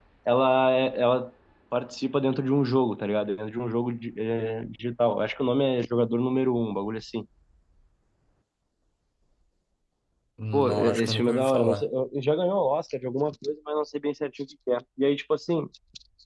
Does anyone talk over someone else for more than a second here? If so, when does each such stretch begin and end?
10.5-11.8

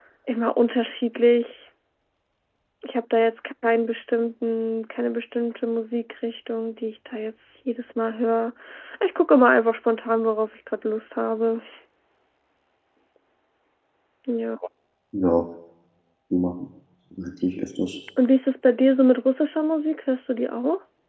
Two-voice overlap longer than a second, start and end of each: none

